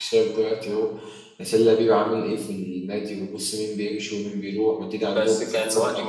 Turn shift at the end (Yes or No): Yes